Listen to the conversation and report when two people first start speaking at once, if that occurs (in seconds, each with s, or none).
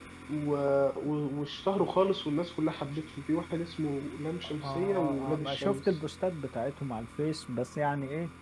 4.4 s